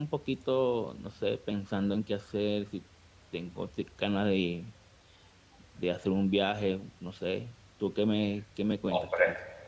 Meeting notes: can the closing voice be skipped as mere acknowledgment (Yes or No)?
No